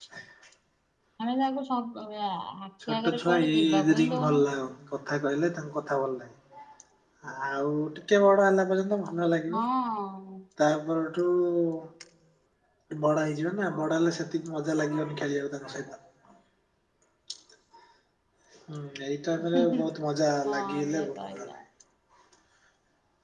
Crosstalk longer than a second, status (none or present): present